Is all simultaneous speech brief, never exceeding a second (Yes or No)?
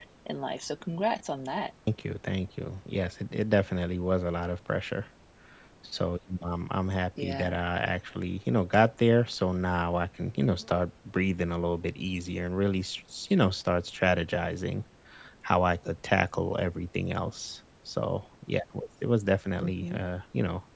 Yes